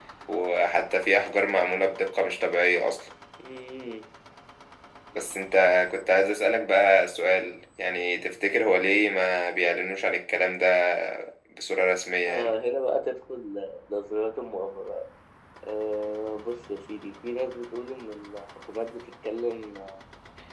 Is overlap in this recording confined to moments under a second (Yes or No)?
Yes